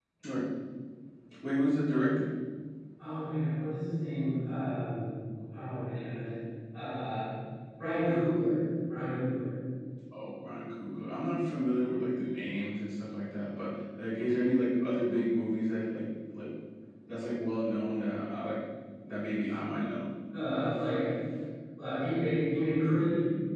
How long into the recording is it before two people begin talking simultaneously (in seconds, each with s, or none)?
none